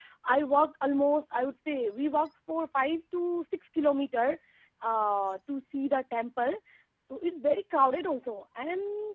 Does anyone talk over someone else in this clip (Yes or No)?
No